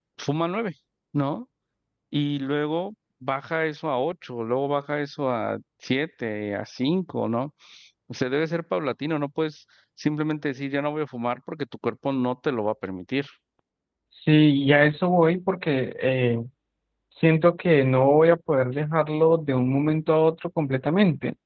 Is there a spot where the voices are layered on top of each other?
No

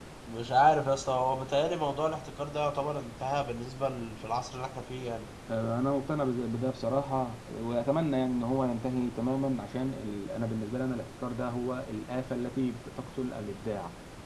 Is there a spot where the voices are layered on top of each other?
No

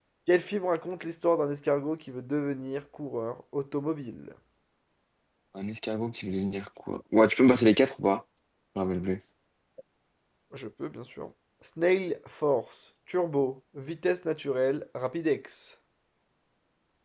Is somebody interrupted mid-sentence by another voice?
No

